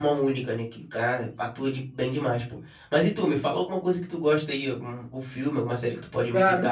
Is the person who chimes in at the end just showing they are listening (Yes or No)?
No